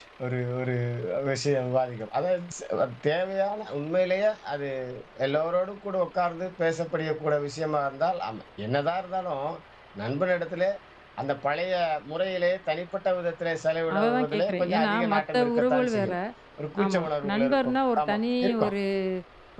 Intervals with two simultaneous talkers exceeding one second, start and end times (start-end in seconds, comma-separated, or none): 13.9-16.1, 16.8-18.7